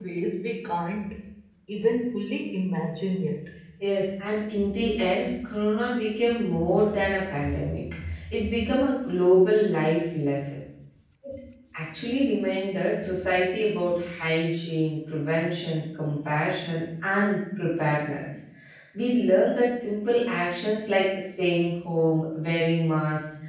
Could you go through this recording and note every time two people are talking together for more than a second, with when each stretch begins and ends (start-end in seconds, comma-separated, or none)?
none